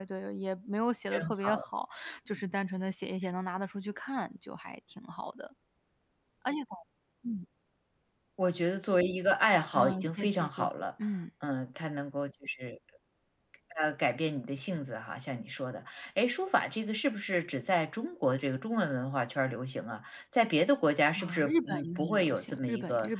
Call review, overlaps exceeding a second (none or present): present